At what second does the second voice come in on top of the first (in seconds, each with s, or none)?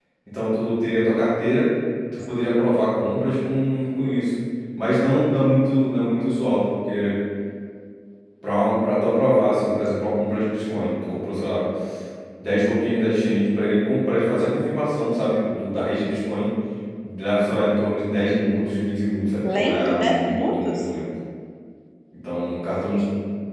19.4 s